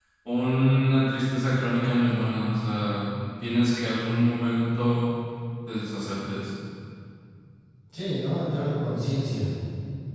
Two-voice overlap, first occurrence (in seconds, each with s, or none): none